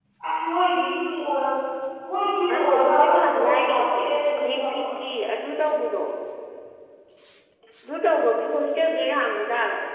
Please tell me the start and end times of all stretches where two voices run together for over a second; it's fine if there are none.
2.5-4.0

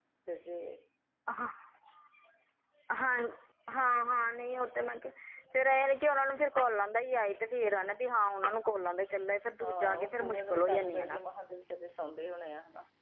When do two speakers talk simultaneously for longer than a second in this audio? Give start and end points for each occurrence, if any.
9.6-11.2

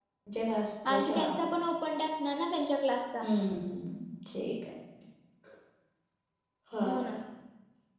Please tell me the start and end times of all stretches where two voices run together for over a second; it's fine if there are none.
none

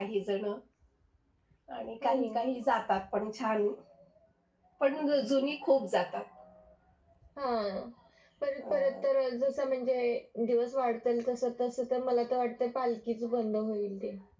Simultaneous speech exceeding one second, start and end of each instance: none

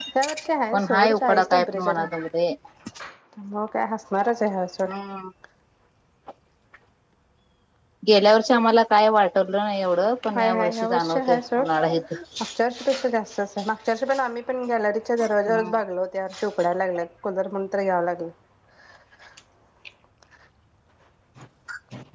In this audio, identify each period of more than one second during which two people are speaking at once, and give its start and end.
0.7-2.1, 10.3-11.7

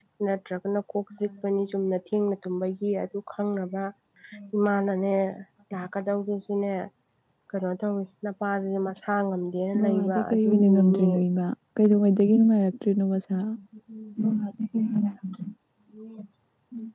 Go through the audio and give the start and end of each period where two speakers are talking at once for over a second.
9.8-11.1

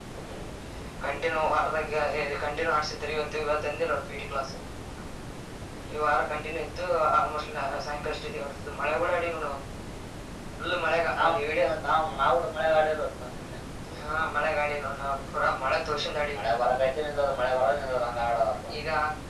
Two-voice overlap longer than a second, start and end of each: none

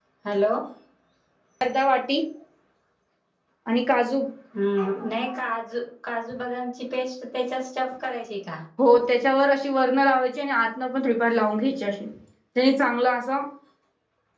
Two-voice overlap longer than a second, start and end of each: none

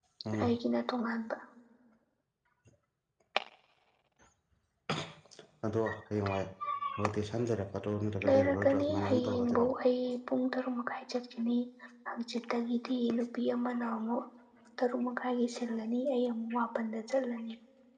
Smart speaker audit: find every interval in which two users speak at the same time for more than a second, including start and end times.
8.2-9.7

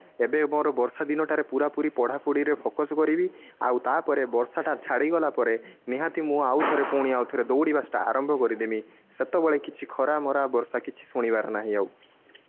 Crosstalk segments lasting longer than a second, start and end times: none

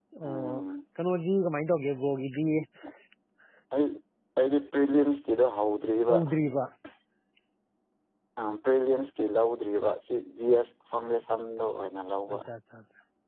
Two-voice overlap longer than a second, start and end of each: none

